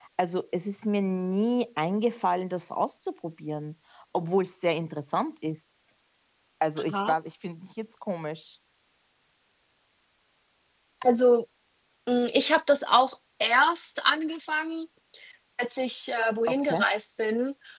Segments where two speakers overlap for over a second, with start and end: none

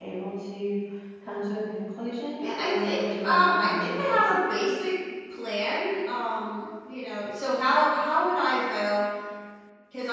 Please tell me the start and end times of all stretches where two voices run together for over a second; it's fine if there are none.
2.4-4.3

